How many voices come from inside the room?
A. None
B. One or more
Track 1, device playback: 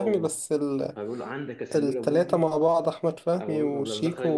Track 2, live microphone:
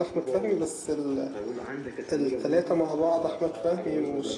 B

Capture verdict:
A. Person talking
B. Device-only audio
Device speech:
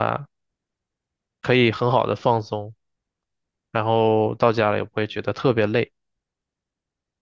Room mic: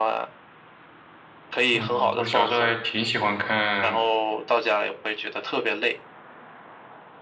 A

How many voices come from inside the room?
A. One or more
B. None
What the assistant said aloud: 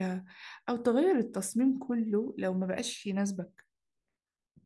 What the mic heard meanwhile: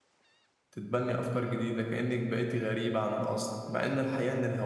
A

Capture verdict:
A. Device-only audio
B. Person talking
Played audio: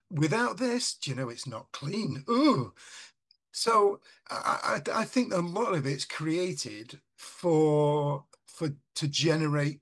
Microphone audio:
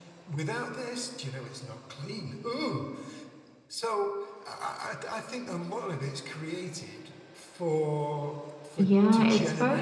B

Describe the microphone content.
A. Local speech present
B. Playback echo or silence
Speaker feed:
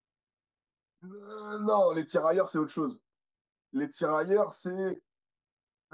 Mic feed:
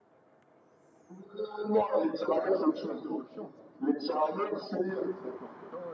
A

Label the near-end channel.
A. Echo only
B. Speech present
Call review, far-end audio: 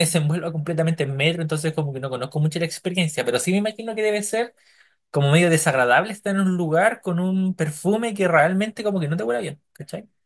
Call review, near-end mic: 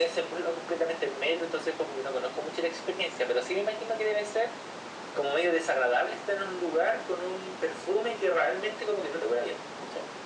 A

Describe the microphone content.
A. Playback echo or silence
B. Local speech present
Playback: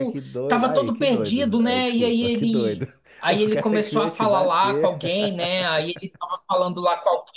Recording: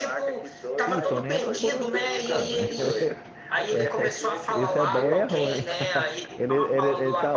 B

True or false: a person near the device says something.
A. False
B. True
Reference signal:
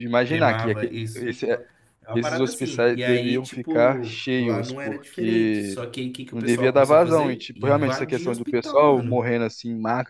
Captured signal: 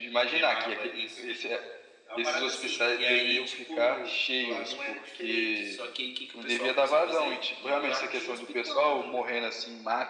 A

